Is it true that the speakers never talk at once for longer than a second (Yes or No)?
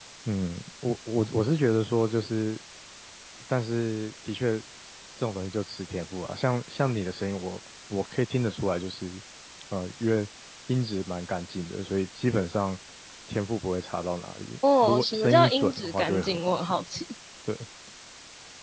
No